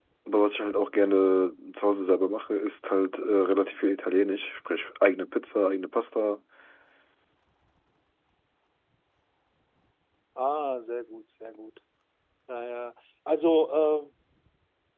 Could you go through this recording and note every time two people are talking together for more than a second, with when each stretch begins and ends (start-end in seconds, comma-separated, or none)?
none